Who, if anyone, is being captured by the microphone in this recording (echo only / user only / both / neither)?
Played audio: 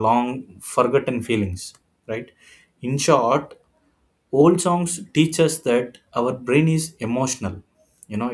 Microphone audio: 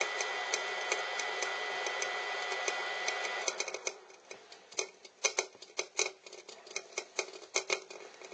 neither